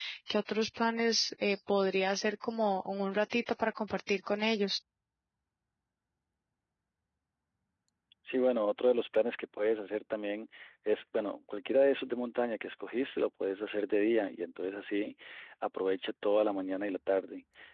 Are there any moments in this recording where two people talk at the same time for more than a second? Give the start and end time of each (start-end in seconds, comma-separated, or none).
none